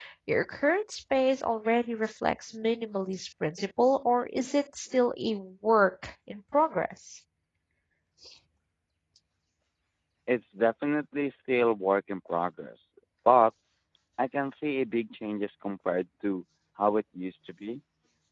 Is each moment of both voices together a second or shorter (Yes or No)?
Yes